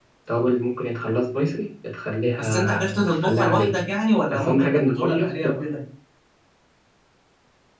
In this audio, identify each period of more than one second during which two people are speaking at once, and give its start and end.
2.4-3.8, 4.3-5.6

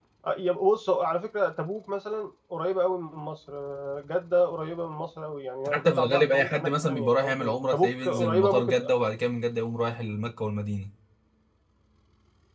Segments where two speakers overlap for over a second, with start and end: 5.7-8.7

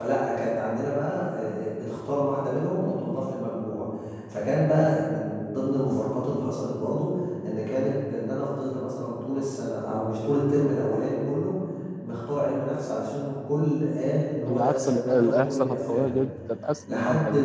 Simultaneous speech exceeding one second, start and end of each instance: 14.4-16.2

